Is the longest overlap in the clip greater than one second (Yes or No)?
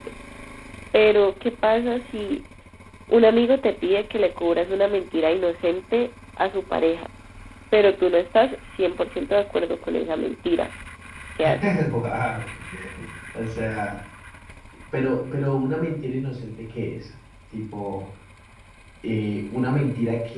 No